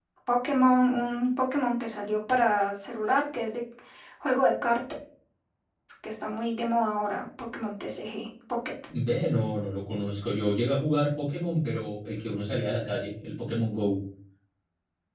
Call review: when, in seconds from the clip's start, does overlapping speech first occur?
none

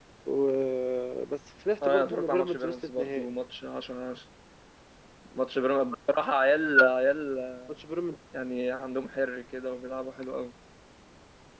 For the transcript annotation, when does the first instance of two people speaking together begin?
1.8 s

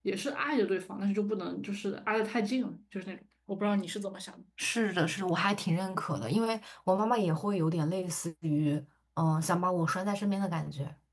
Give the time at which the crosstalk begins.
none

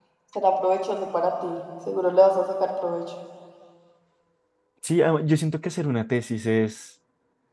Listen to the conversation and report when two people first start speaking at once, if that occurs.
none

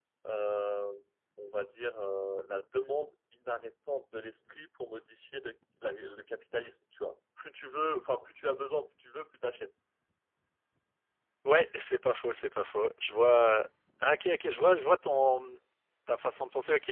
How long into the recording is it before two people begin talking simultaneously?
none

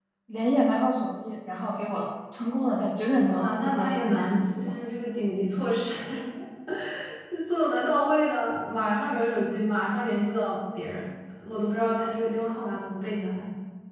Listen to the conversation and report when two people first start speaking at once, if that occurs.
3.3 s

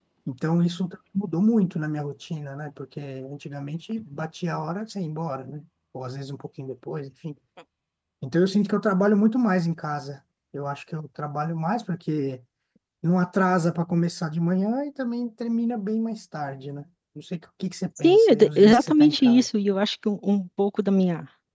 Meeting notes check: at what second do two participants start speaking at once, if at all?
18.0 s

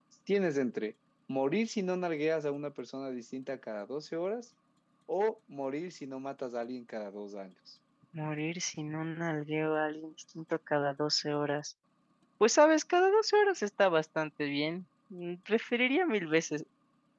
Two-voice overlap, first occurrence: none

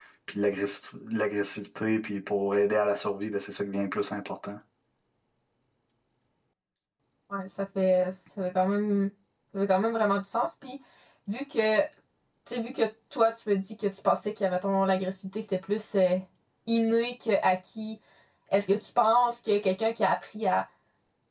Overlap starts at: none

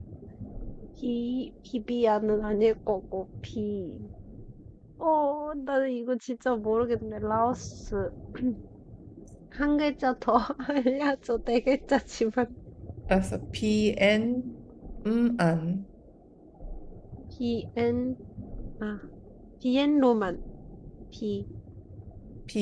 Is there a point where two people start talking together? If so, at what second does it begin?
none

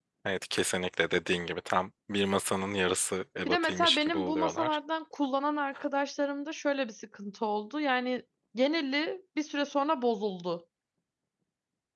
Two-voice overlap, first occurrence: 3.4 s

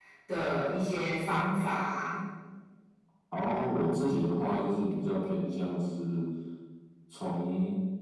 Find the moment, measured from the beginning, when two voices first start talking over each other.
none

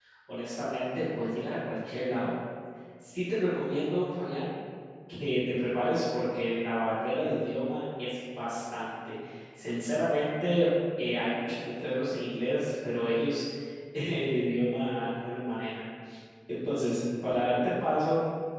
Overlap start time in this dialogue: none

